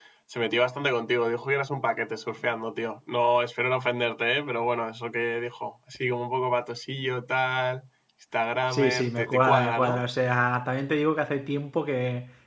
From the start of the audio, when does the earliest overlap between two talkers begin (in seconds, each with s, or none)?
8.7 s